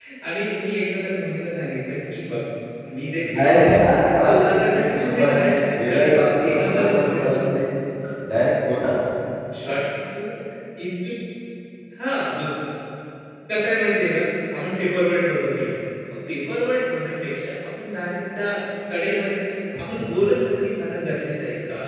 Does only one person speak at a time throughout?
No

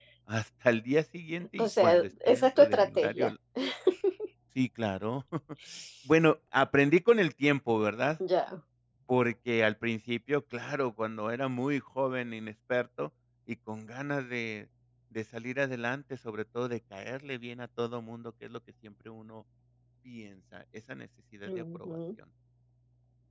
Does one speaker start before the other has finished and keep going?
Yes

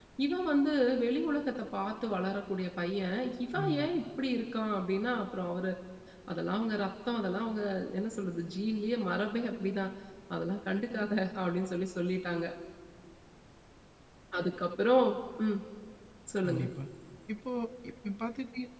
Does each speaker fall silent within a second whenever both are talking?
Yes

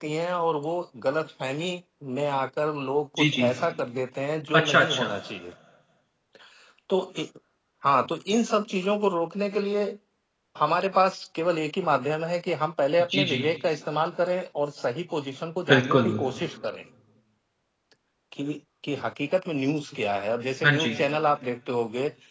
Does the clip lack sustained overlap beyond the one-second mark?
Yes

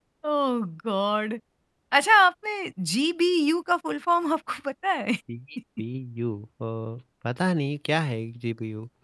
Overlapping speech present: No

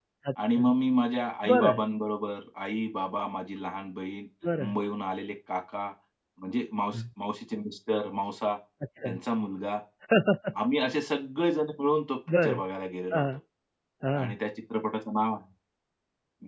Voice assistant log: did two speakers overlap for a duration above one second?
No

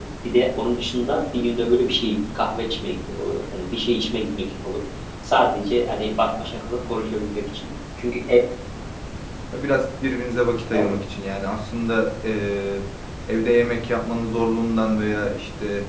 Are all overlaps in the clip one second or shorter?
Yes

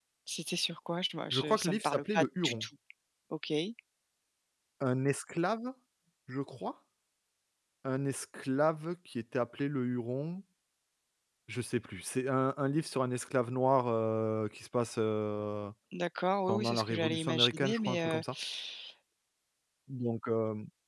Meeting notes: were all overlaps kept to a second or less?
No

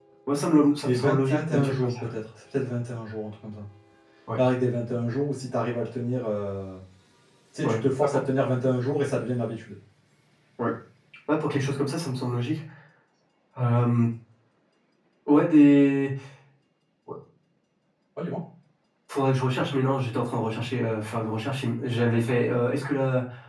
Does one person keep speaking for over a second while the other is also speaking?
Yes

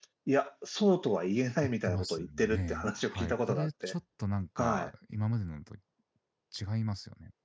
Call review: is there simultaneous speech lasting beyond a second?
Yes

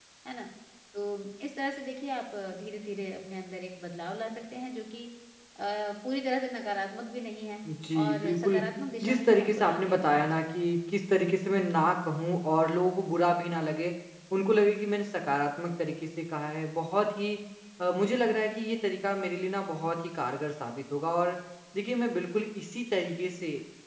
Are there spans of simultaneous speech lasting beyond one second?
Yes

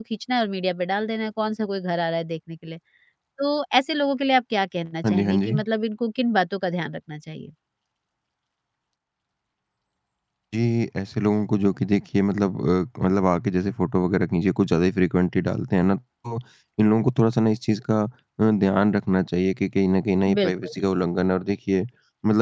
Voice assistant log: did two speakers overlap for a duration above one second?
No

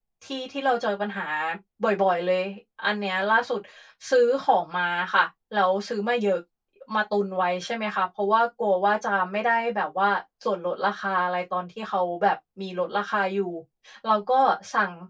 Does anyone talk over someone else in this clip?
No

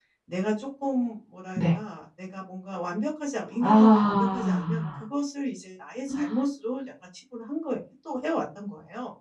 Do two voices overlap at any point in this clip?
Yes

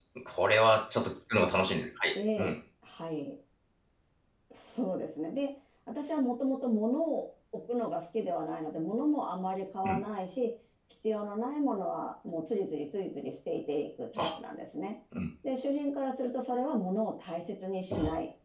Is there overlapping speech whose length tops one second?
No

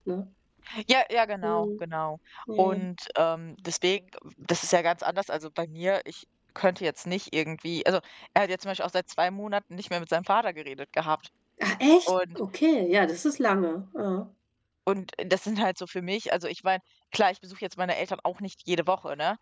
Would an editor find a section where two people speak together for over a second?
No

